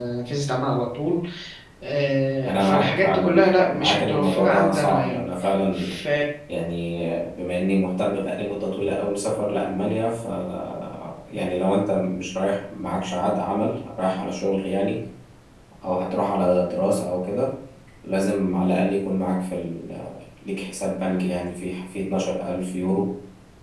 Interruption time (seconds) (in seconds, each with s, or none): 2.5 s